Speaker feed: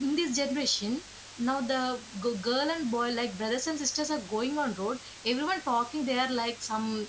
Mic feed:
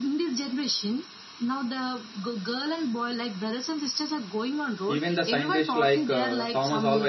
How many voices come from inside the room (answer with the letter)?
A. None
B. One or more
B